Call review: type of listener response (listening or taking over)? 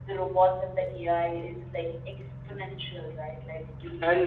taking over